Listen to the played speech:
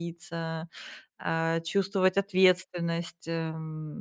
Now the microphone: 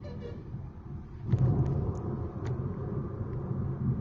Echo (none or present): none